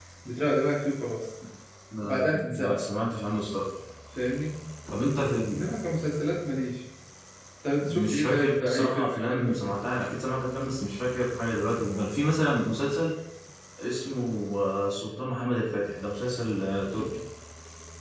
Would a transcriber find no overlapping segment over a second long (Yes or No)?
No